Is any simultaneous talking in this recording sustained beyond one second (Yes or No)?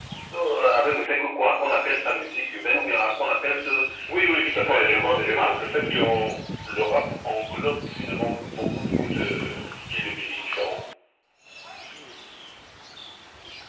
Yes